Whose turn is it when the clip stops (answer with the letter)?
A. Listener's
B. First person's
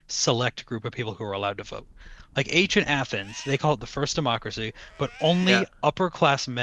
B